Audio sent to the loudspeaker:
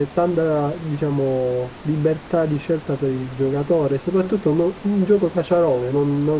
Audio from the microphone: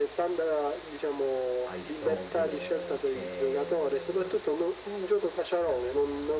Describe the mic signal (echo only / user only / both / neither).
both